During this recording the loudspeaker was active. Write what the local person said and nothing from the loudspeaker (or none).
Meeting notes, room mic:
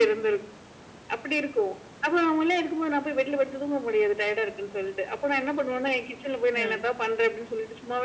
அ.